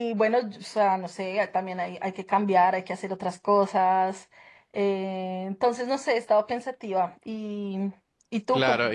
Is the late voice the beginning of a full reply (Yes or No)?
Yes